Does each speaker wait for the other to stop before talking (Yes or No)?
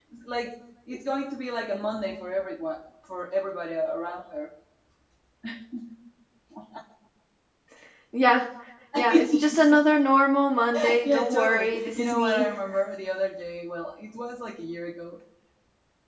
No